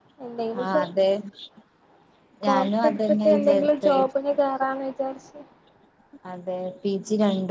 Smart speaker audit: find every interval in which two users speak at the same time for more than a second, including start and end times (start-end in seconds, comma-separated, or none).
2.5-4.0